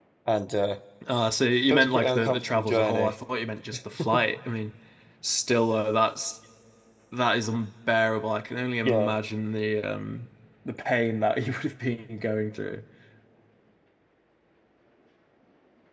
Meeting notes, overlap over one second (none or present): present